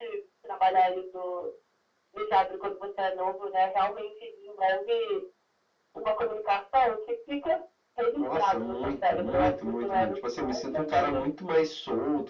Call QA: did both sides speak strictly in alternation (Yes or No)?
No